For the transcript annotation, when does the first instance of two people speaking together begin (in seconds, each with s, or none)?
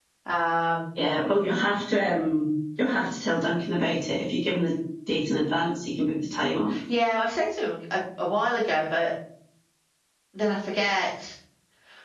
none